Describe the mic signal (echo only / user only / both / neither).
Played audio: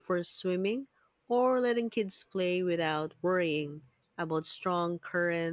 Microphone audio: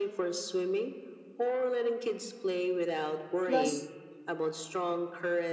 both